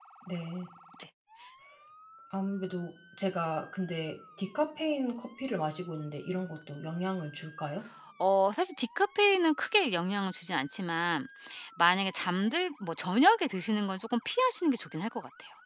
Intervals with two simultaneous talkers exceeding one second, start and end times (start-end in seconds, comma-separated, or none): none